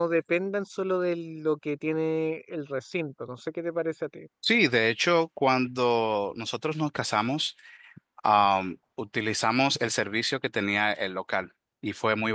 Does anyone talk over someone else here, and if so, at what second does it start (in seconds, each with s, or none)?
none